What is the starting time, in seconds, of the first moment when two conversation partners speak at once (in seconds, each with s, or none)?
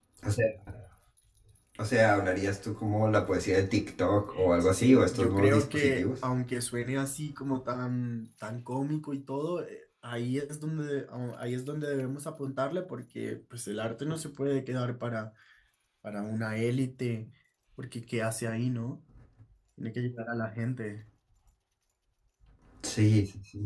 4.6 s